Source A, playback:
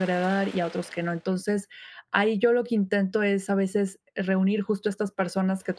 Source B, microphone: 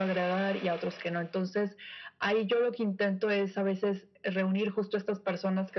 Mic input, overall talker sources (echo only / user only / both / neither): echo only